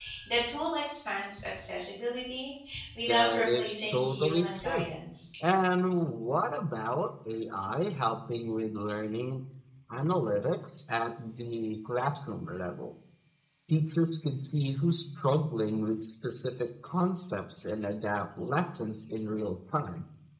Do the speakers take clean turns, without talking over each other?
No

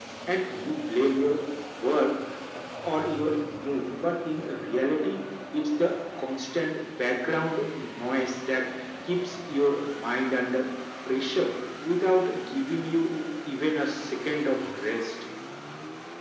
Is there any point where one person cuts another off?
No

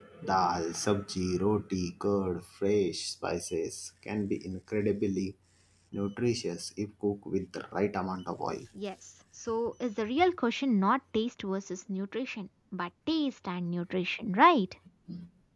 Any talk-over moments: No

